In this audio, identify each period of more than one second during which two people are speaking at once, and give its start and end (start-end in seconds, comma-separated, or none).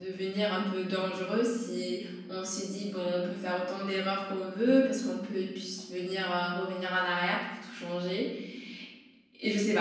none